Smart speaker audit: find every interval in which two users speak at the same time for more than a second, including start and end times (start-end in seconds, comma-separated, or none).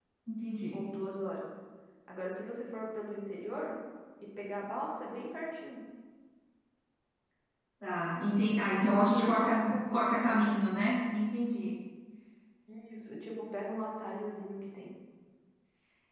8.7-10.5